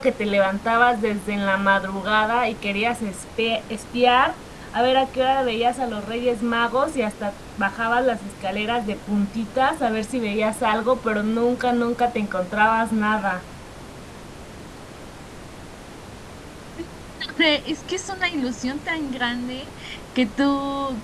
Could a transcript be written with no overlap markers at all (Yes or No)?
Yes